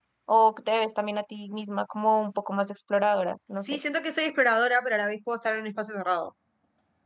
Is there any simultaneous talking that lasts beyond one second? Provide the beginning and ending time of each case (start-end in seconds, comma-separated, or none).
none